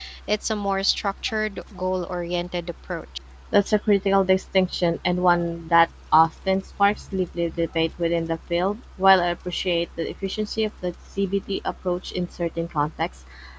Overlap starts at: none

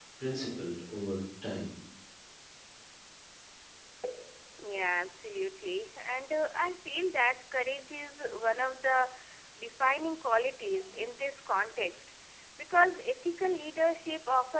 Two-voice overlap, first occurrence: none

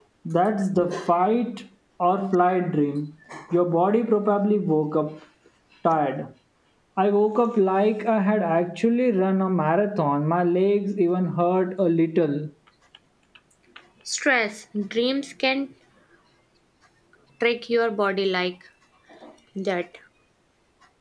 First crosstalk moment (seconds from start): none

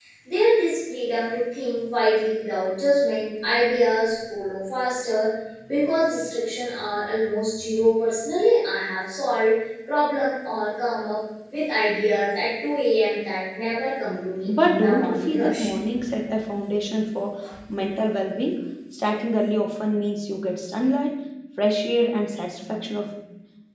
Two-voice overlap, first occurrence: 14.5 s

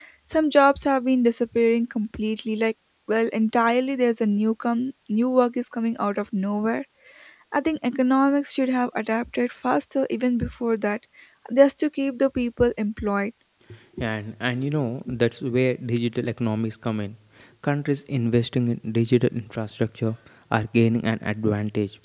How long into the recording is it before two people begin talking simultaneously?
none

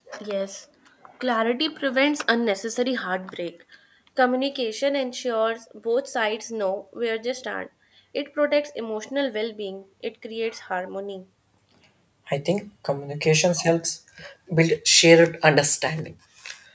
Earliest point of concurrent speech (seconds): none

